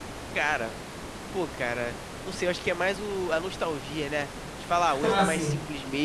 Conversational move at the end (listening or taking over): listening